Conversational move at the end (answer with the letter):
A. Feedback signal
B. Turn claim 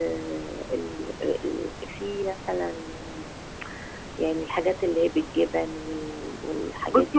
B